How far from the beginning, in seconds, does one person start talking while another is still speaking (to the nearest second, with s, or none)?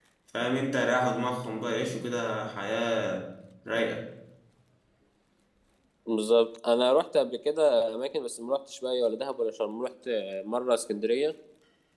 none